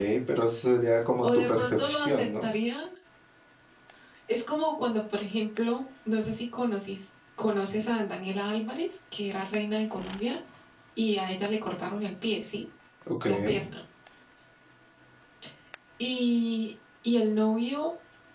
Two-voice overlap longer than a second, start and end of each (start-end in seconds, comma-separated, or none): 1.2-2.5